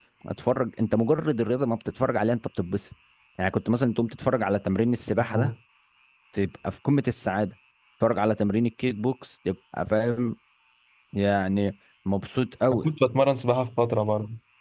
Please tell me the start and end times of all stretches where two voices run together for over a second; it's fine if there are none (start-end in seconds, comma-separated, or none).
none